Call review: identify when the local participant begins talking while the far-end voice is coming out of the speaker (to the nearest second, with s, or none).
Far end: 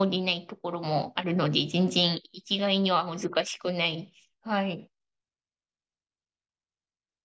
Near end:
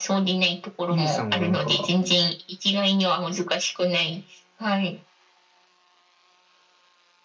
1 s